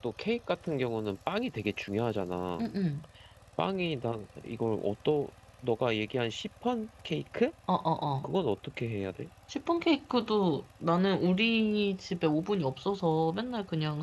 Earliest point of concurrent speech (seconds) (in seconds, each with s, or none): none